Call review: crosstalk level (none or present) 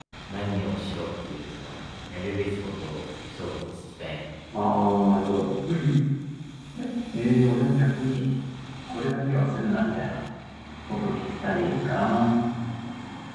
none